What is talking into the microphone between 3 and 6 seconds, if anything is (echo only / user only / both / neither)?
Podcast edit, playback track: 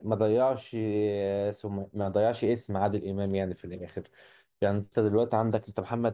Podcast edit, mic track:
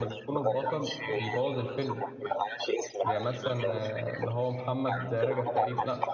both